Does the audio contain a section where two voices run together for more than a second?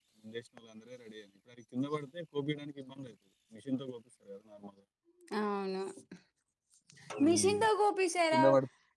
No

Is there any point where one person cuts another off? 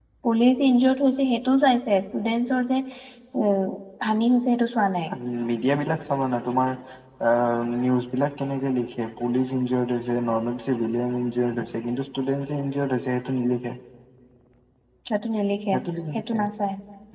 No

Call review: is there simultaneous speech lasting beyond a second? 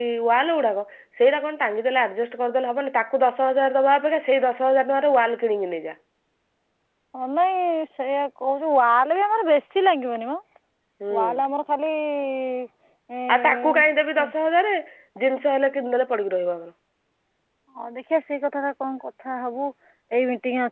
No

